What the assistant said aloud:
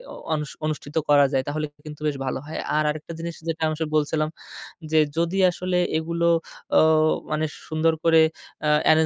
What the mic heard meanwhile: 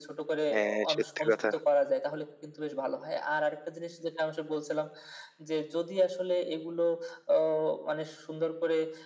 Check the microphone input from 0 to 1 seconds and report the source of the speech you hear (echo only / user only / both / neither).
both